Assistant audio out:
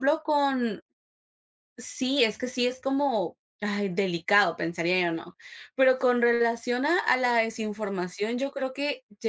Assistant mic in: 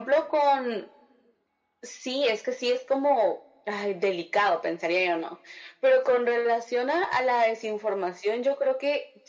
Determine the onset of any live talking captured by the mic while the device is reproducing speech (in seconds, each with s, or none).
none